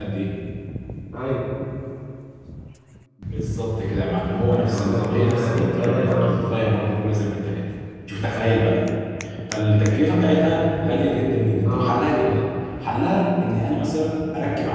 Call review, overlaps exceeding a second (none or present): present